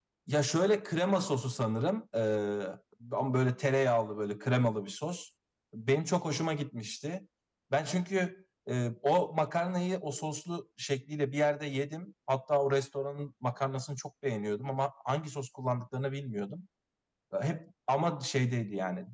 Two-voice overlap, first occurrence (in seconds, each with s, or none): none